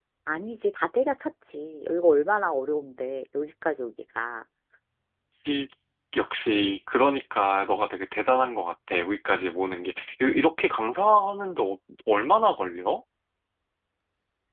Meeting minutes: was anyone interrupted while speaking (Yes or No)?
No